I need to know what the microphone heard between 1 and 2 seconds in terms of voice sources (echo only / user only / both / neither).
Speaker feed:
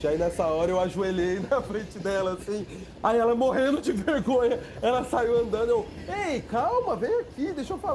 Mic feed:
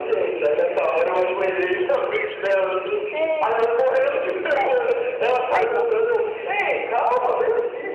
echo only